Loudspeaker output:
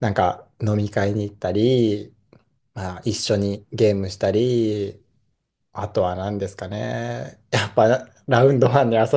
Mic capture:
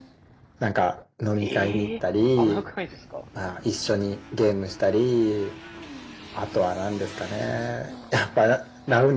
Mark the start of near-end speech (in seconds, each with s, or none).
1.4 s